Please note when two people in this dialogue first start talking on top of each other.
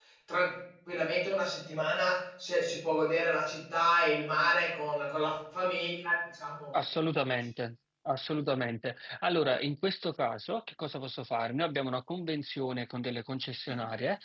none

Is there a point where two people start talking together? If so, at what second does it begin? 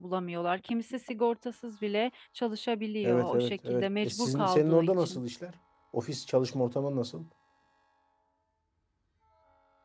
3.0 s

